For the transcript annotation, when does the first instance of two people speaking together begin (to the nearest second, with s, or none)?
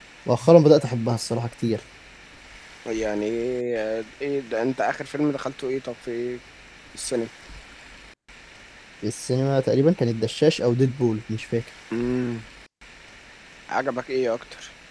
none